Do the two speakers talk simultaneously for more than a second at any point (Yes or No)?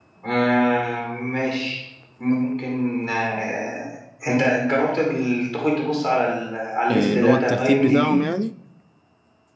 Yes